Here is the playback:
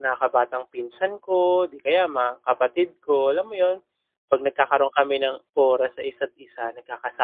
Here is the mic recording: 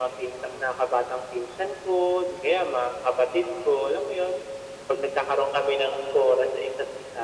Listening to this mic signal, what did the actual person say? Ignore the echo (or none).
none